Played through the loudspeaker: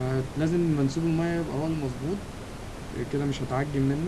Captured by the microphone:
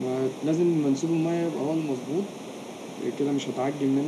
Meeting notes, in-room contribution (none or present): none